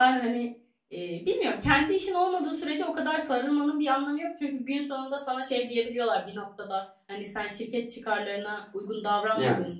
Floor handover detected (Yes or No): No